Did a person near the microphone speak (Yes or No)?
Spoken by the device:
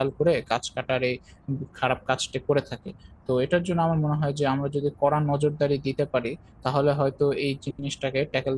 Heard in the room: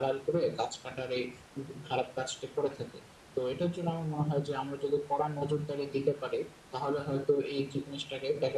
No